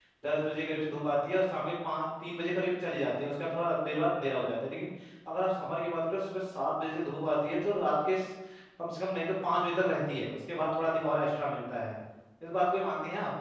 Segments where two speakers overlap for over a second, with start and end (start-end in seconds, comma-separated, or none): none